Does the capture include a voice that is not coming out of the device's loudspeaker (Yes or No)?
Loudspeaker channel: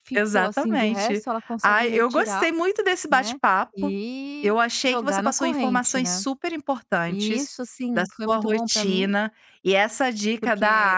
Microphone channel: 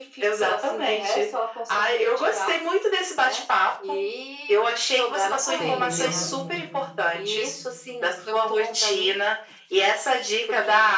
Yes